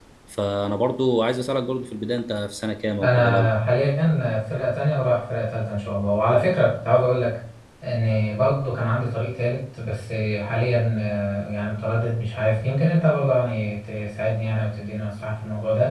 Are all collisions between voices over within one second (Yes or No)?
Yes